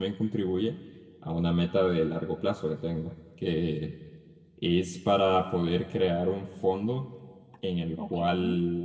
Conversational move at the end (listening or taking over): listening